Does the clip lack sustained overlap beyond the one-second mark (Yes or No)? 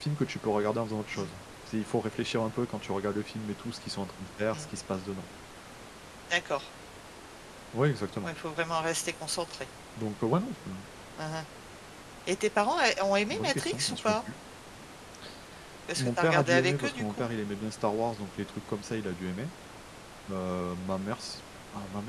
No